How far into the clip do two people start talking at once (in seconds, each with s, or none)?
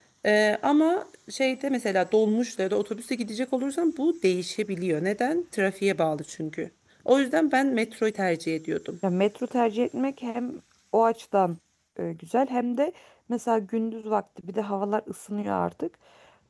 none